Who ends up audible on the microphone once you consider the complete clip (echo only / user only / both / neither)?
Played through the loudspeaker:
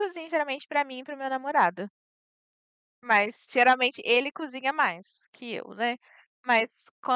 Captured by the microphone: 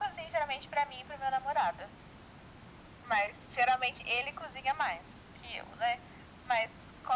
echo only